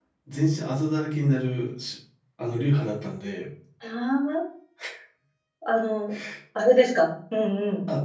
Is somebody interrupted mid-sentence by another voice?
No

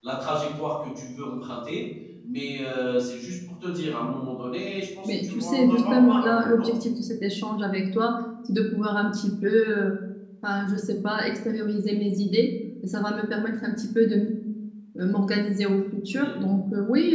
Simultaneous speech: Yes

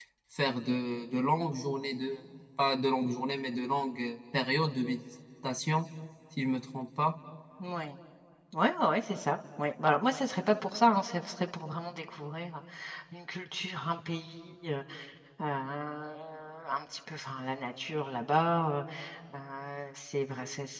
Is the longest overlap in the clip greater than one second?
No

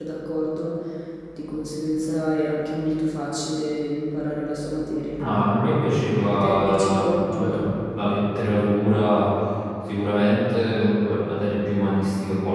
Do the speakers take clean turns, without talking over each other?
No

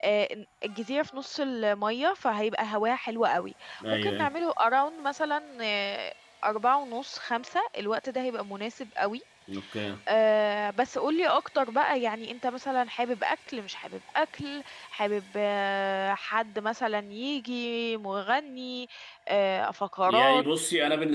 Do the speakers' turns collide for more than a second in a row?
No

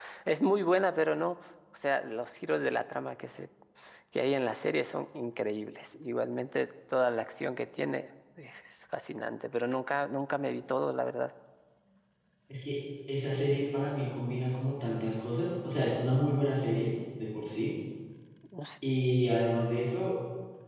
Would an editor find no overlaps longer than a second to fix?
Yes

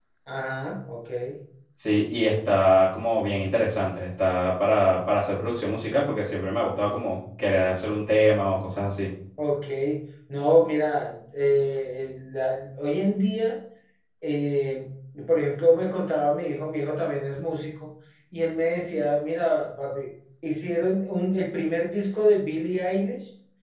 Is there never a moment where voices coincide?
Yes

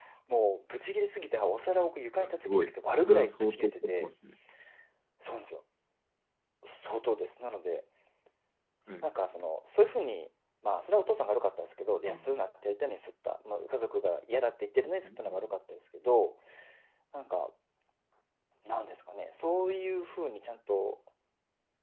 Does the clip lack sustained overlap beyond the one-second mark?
No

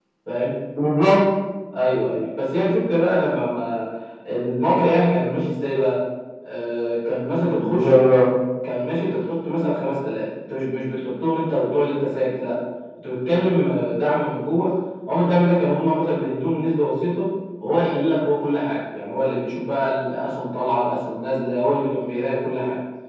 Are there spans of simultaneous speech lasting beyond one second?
No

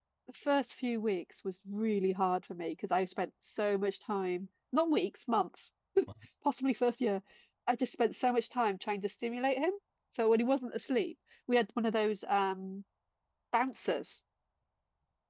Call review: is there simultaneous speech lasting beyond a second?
No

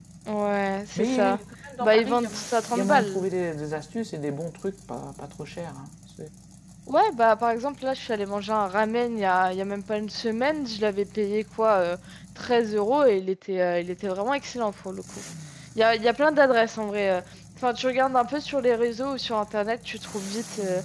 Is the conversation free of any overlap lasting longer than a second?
No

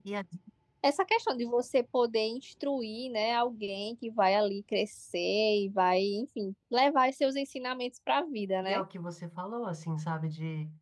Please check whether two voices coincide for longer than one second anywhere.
No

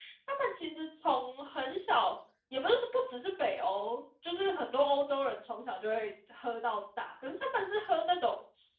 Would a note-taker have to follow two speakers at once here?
No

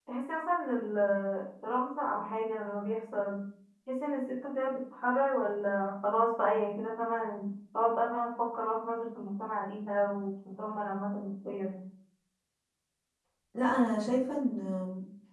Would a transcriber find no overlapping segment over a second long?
Yes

